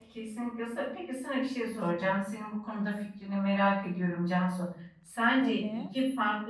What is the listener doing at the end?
listening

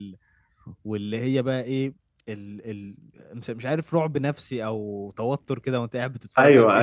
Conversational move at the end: taking over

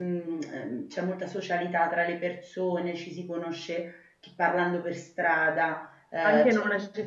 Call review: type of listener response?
taking over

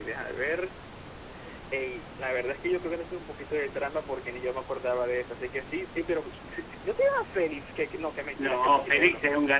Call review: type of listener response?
taking over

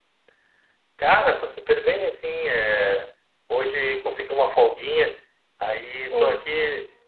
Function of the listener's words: listening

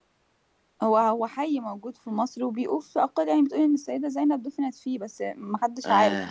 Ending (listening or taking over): taking over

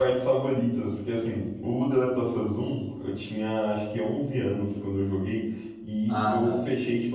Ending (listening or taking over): listening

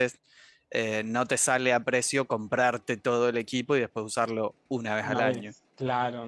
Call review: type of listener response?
taking over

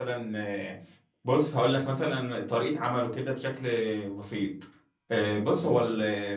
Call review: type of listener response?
listening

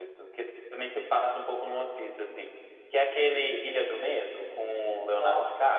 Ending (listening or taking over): taking over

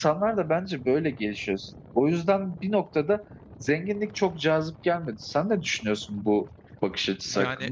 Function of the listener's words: taking over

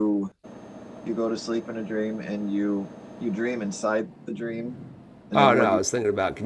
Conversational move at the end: taking over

